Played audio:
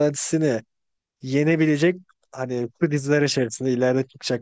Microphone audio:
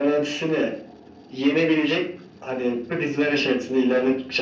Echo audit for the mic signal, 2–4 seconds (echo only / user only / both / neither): echo only